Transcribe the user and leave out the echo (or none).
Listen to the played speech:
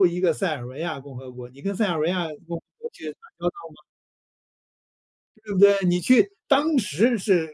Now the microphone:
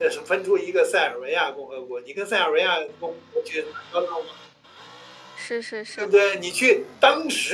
是是是。